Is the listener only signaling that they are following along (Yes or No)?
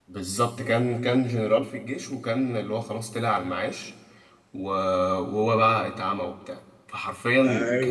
No